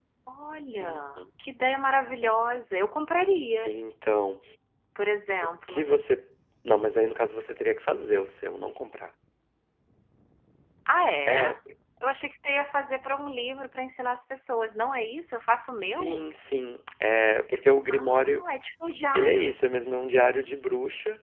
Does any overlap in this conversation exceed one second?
No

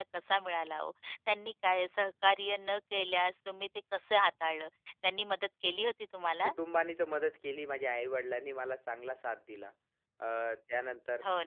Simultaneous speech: No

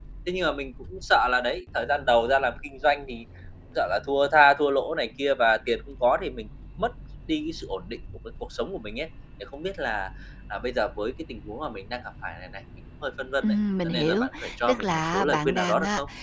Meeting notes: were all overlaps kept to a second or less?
No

